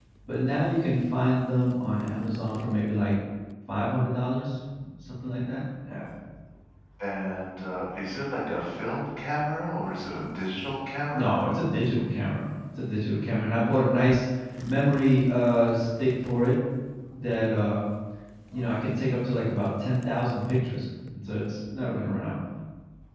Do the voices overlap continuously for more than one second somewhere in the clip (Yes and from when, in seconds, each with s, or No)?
No